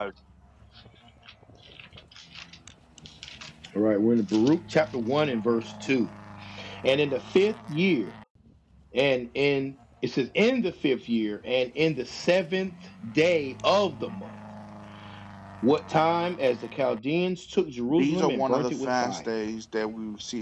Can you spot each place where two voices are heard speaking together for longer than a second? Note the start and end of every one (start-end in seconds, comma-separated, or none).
17.9-19.3